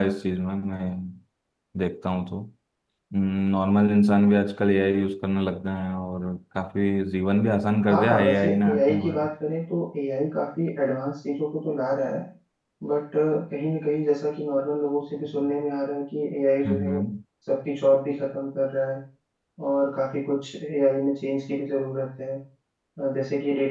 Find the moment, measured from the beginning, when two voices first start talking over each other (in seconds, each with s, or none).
7.8 s